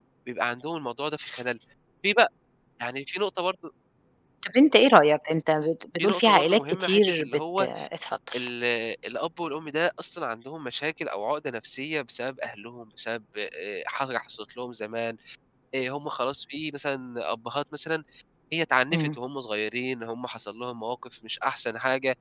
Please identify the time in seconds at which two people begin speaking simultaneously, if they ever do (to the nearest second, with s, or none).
6 s